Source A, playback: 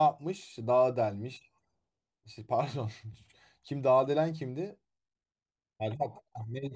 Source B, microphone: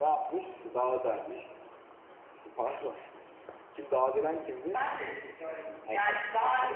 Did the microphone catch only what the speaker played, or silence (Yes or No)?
No